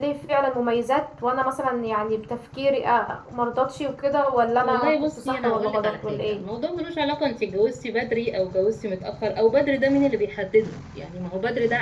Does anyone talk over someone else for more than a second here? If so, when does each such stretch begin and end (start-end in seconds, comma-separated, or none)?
4.6-6.4